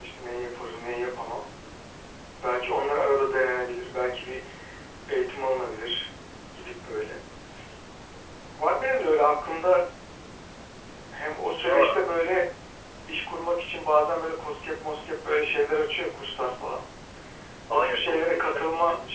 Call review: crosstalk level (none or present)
present